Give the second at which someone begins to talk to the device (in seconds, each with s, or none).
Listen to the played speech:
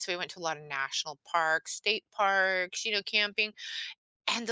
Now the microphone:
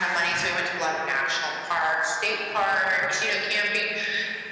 none